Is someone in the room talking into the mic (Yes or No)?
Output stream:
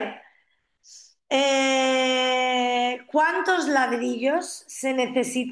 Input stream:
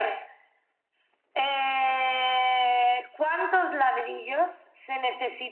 No